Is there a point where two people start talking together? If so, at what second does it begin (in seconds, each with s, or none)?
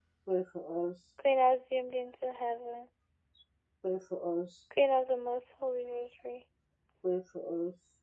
none